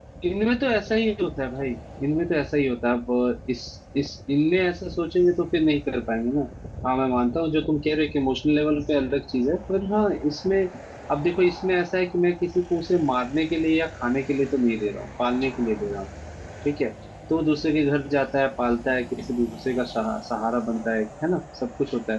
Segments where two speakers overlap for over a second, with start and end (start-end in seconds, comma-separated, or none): none